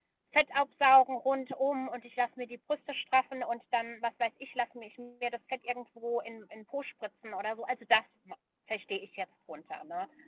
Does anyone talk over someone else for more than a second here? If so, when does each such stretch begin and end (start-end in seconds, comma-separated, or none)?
none